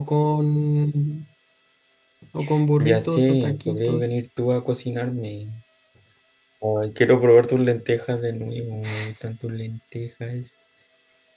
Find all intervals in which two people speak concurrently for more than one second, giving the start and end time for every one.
2.8-4.1

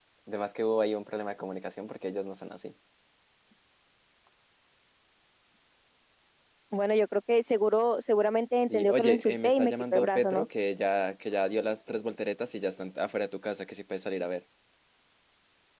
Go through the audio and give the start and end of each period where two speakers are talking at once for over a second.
8.7-10.4

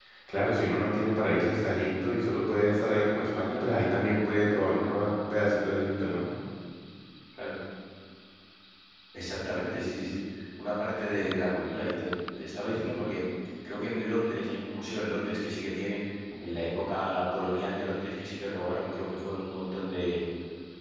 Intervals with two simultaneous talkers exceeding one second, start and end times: none

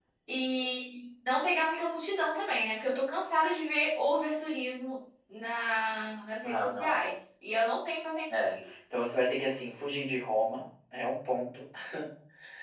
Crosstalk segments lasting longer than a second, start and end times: none

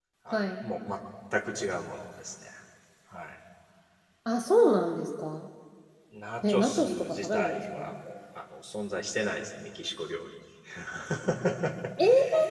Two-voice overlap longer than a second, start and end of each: 6.4-7.8

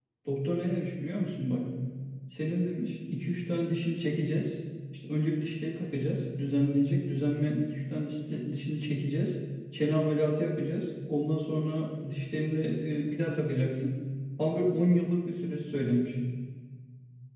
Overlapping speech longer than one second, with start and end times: none

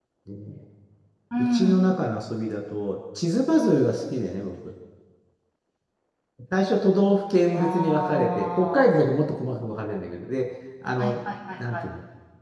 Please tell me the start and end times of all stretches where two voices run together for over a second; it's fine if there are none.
7.5-8.9

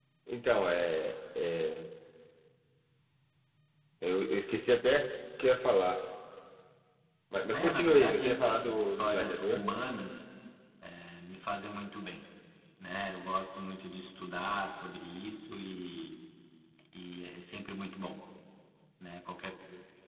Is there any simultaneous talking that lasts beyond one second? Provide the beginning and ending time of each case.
7.5-9.6

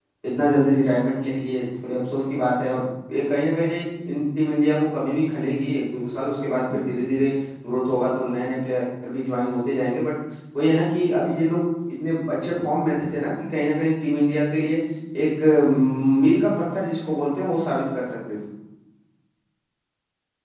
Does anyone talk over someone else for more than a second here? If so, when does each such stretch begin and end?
none

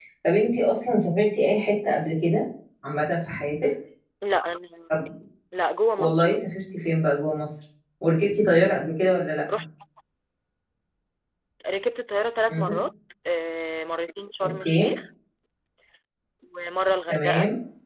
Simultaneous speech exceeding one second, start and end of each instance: none

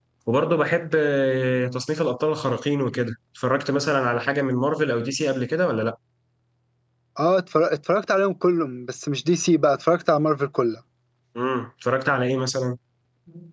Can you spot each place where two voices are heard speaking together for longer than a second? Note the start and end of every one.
none

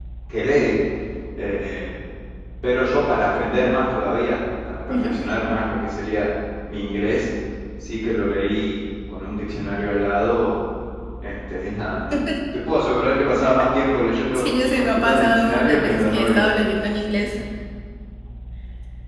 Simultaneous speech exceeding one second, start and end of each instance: 14.3-16.5

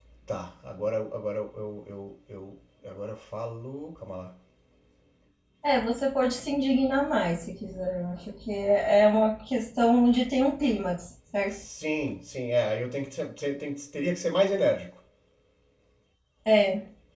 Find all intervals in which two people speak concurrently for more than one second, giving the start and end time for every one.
none

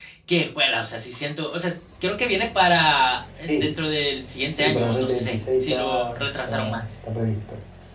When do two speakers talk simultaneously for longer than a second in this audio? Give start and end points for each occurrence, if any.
4.5-6.9

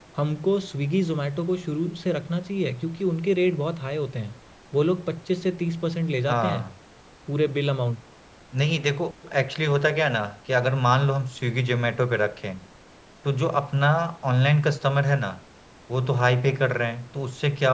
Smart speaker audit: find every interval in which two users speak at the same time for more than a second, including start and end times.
none

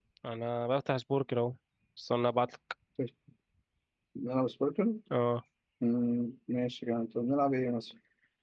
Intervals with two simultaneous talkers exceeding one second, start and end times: none

